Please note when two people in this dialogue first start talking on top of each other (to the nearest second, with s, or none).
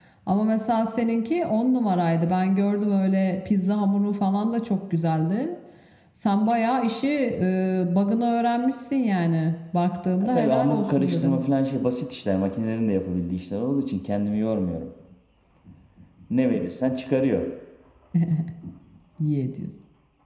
10 s